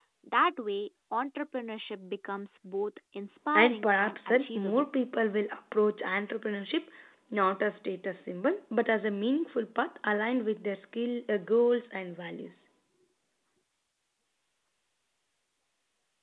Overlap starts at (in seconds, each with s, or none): 3.5 s